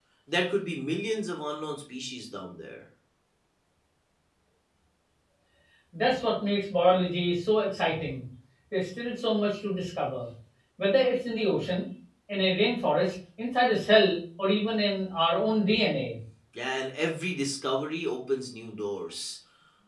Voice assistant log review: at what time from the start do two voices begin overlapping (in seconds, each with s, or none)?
none